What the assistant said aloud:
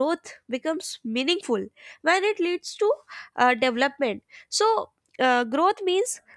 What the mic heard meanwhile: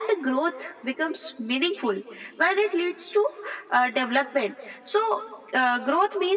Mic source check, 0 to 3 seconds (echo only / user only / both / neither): echo only